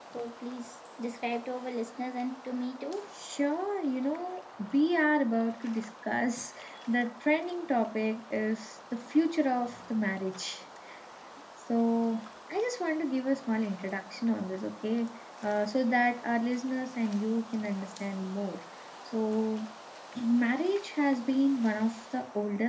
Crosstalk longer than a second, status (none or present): none